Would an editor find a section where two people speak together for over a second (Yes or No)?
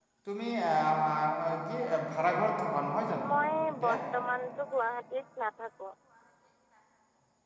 No